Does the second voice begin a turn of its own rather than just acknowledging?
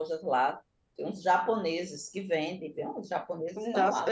Yes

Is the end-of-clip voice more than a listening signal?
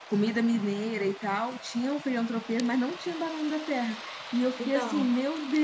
No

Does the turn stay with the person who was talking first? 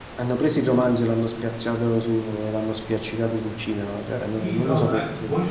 No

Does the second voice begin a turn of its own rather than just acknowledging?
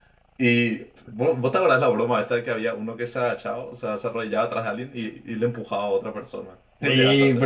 Yes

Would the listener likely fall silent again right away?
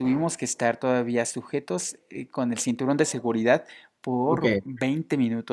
Yes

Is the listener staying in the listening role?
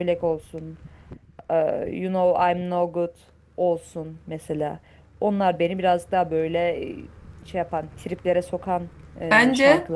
No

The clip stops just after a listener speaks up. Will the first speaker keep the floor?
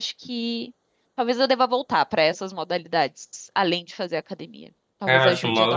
No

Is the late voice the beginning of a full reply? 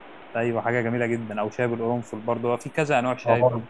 Yes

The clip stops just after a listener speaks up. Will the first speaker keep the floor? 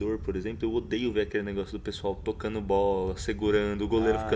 No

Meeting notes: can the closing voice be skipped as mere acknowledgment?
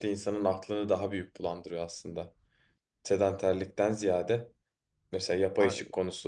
Yes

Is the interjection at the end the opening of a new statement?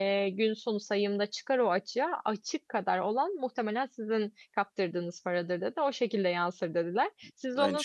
No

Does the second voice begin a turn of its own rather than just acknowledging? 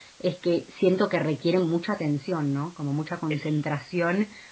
No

